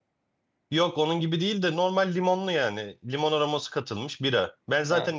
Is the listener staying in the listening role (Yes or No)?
Yes